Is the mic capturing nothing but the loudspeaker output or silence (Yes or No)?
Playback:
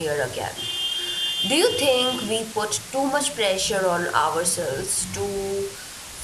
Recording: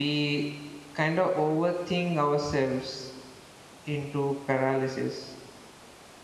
No